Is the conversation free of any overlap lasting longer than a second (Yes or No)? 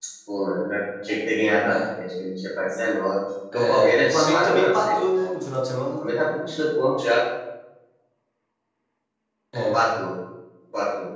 No